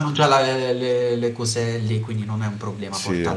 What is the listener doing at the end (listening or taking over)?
listening